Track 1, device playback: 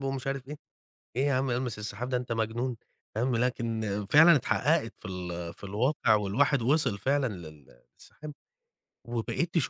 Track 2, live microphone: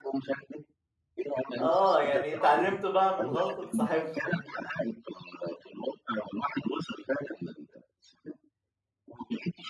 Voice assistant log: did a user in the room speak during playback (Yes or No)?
Yes